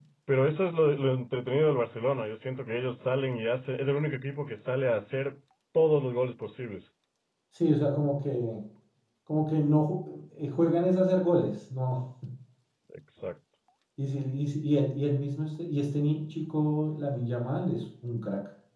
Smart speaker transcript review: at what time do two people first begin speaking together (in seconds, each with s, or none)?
none